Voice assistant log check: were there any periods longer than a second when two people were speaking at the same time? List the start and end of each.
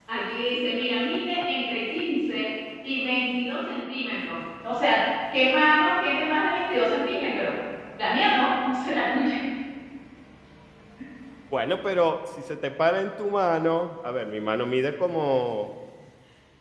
none

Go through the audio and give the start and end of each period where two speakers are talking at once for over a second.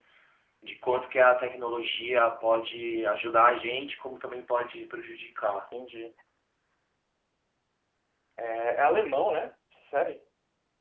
none

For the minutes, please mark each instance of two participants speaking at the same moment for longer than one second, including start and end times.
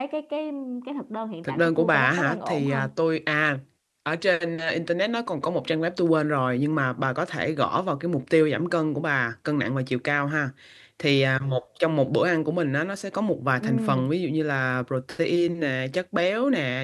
1.4-2.9

